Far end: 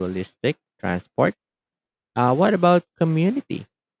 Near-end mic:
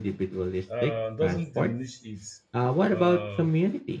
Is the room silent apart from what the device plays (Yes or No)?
No